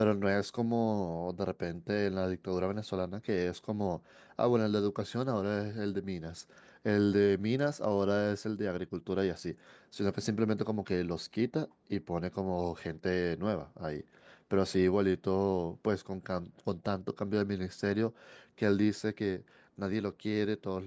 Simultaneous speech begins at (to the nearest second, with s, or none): none